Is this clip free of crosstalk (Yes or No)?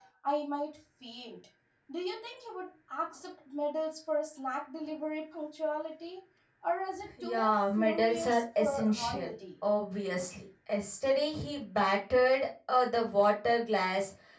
No